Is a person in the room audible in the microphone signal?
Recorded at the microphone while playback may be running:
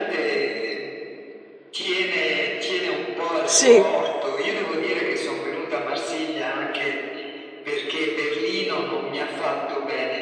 Yes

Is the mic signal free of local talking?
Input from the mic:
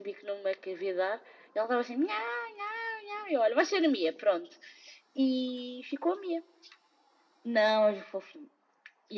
Yes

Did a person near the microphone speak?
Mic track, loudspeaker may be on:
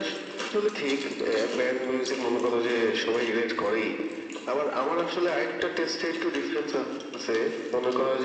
No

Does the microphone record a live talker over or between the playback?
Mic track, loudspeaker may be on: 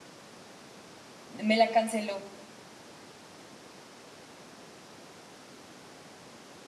Yes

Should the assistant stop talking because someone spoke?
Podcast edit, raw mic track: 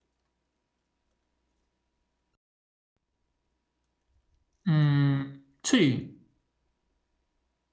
Yes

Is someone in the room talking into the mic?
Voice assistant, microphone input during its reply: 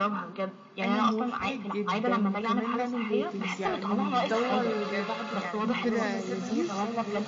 Yes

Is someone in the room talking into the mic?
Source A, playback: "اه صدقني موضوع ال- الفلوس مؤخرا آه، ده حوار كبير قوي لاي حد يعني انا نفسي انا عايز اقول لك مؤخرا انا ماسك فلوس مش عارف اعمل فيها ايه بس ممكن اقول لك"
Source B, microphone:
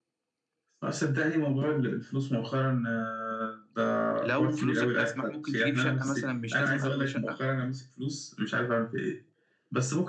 Yes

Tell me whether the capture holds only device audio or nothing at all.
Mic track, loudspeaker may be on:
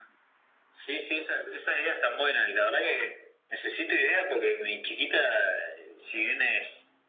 Yes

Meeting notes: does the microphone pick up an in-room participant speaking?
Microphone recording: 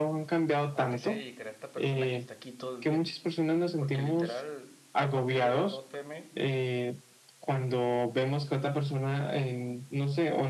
Yes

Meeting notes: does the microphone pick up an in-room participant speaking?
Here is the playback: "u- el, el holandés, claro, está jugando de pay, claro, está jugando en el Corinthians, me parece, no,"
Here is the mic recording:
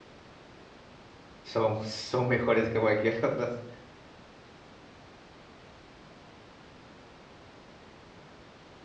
Yes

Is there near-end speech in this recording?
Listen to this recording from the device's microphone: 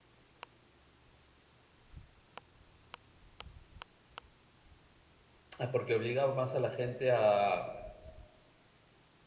Yes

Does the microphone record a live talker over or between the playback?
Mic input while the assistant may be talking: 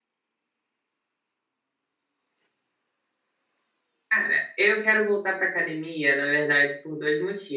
Yes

